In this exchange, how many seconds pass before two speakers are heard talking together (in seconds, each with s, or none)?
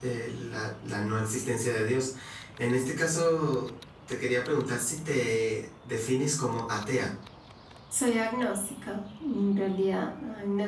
none